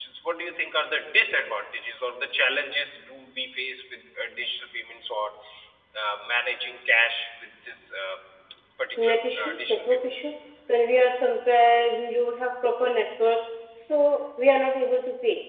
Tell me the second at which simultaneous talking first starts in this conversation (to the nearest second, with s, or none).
9 s